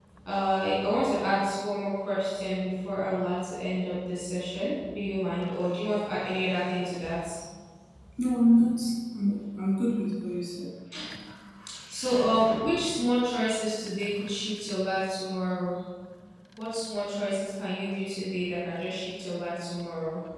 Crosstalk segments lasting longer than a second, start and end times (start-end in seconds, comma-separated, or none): none